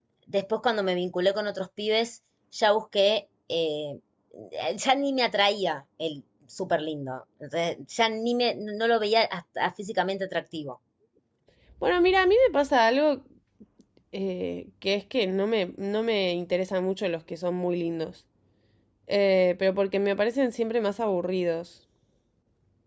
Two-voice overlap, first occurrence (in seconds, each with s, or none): none